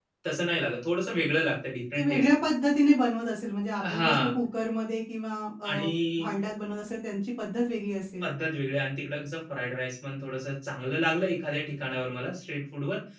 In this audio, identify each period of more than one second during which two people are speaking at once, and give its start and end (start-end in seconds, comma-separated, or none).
none